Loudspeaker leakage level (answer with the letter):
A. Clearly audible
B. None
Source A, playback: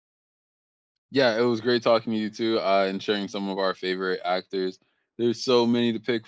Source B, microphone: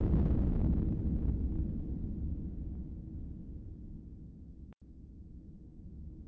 B